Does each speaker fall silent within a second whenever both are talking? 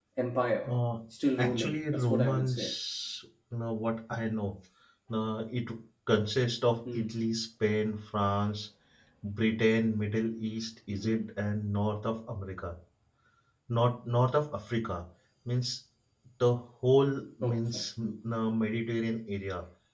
No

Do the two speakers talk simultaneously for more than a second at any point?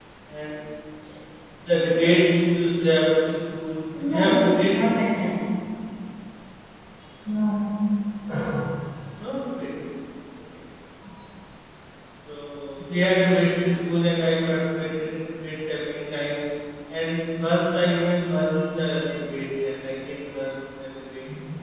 Yes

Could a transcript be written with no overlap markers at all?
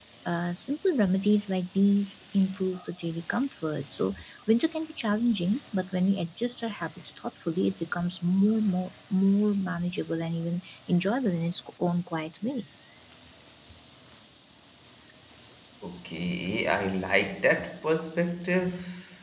Yes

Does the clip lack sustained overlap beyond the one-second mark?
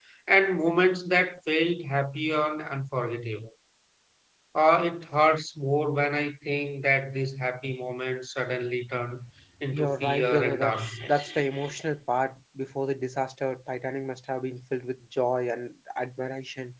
No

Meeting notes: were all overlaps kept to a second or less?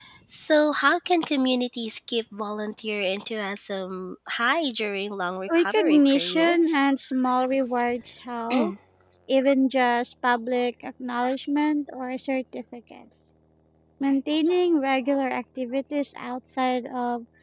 No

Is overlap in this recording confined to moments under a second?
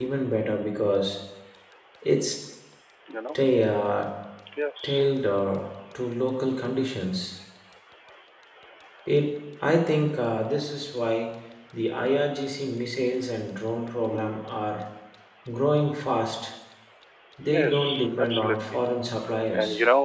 No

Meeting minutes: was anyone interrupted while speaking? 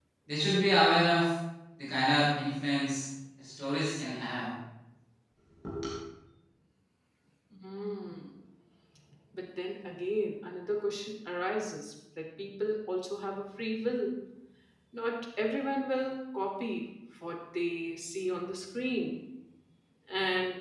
No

